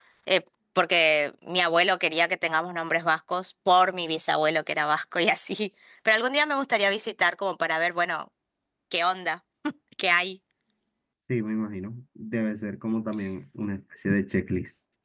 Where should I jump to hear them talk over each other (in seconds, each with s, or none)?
none